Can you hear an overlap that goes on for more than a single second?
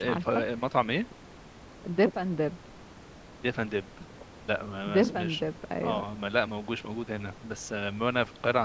No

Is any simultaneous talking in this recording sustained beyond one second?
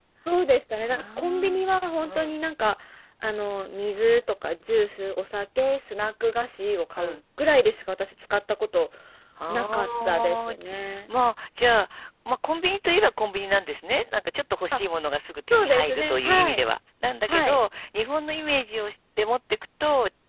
Yes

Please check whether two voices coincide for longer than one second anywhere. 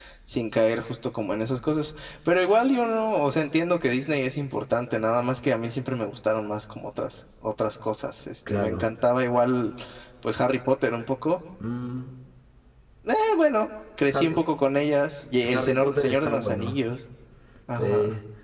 Yes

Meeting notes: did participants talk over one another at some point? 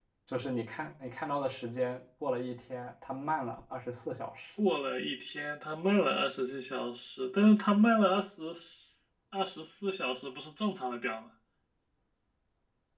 No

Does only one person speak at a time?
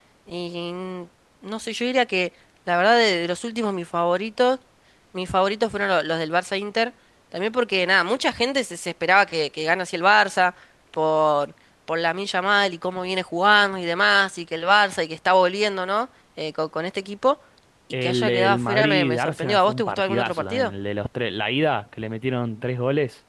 No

